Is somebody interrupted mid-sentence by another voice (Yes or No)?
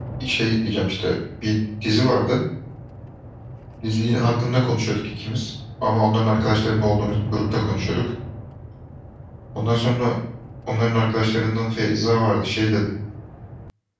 No